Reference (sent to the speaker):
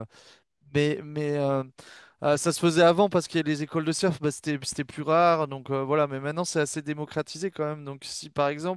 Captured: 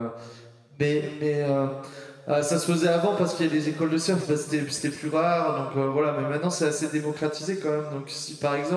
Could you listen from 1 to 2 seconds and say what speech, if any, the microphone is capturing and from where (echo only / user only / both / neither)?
echo only